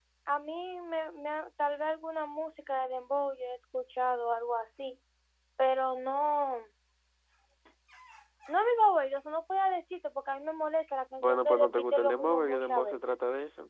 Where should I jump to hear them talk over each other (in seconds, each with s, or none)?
11.2 s